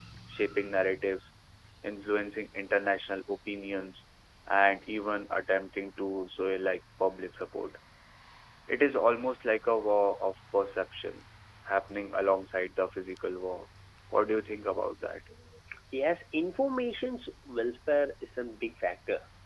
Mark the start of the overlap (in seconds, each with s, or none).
none